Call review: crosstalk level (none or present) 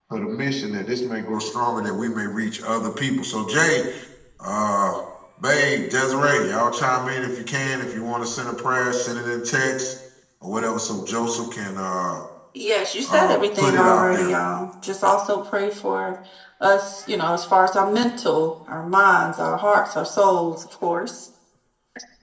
present